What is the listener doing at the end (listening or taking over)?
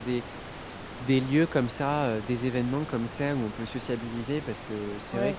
taking over